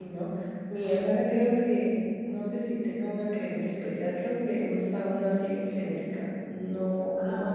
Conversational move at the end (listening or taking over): listening